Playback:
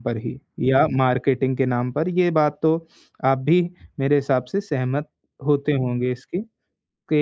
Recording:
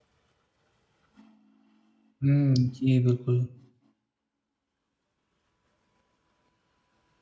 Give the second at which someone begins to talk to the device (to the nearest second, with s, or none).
2 s